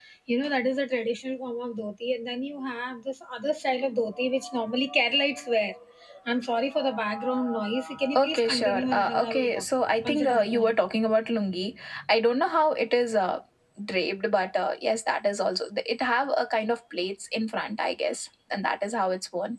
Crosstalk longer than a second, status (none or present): present